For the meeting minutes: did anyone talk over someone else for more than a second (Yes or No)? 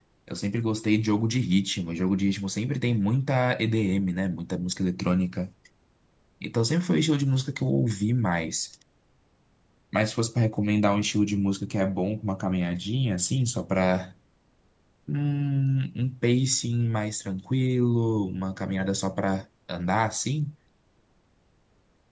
No